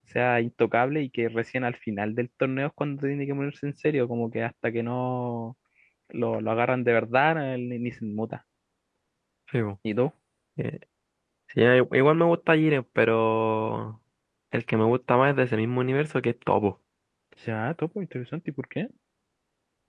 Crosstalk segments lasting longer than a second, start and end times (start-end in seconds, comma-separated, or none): none